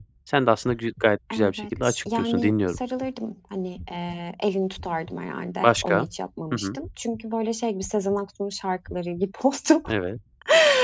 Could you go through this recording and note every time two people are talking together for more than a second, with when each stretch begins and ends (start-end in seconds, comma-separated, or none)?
1.3-2.8